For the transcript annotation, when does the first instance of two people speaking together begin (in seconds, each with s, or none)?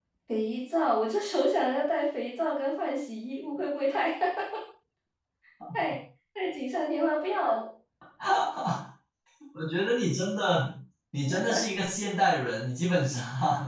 none